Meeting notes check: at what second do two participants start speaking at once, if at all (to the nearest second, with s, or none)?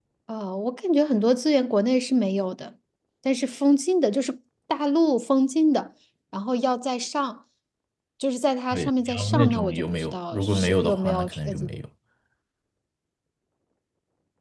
9 s